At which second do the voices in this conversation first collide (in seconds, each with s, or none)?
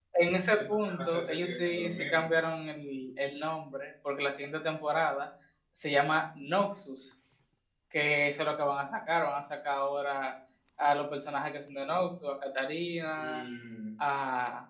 0.5 s